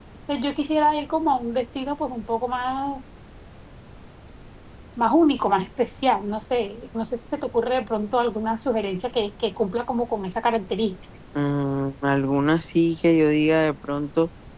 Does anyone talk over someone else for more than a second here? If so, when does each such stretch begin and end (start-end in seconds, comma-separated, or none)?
none